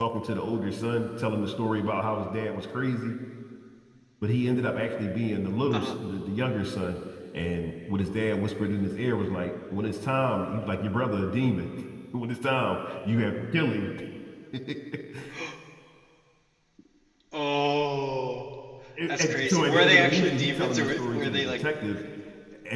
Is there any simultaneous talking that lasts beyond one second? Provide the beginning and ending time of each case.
19.1-21.5

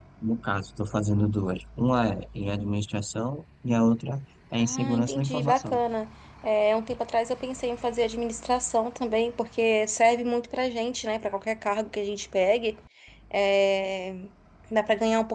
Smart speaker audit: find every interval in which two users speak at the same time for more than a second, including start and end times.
4.6-5.8

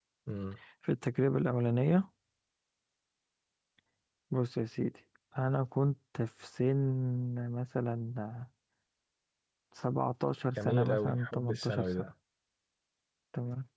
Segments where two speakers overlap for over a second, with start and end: 10.6-12.1

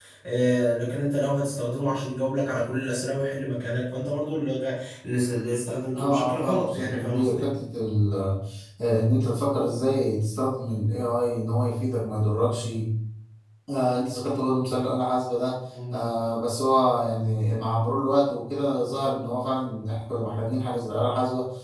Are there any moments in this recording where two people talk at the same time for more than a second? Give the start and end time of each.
5.9-7.4

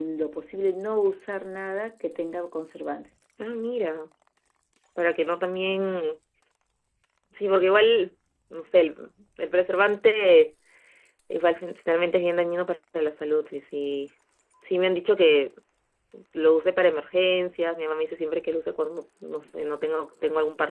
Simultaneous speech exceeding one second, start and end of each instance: none

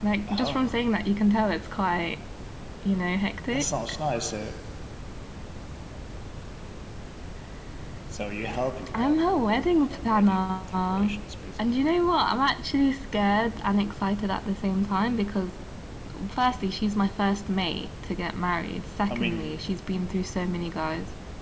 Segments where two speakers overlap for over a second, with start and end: 8.9-11.1

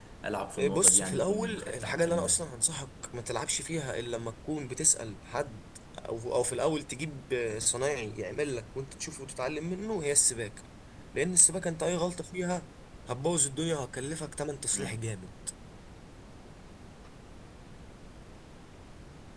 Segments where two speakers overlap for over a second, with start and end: 0.7-2.5

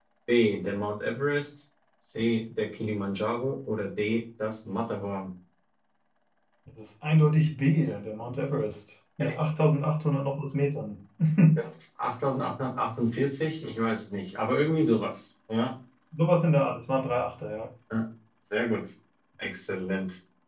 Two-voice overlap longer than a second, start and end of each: none

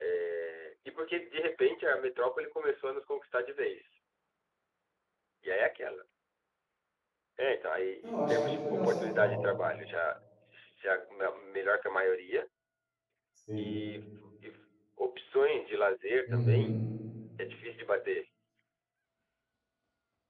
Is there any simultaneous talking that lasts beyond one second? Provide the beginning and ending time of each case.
8.0-9.4

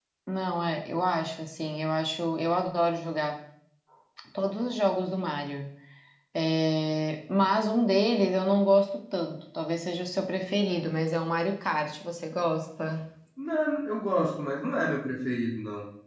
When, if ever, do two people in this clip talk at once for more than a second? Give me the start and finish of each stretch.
none

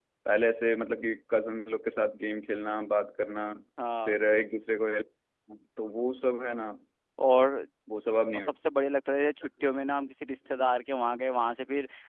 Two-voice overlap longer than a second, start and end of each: none

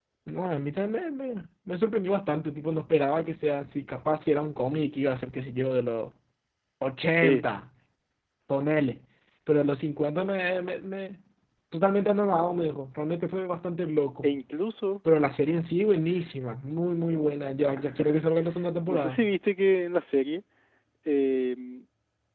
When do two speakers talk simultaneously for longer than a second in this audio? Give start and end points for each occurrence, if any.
none

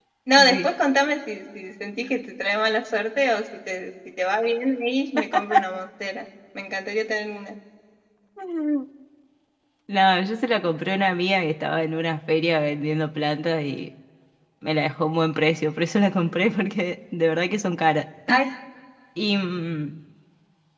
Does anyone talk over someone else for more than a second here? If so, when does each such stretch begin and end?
none

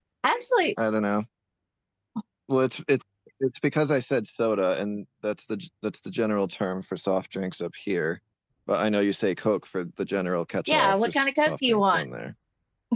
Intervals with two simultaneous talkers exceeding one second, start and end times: 10.7-12.0

